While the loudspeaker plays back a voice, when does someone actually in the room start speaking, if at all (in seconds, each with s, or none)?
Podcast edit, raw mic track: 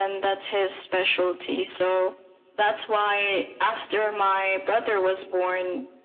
none